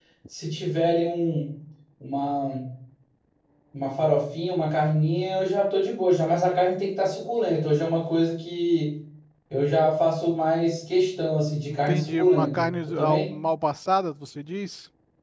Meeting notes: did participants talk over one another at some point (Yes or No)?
Yes